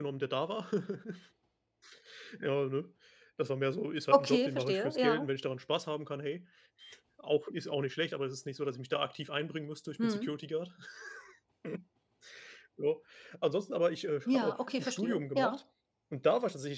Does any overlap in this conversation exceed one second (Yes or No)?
Yes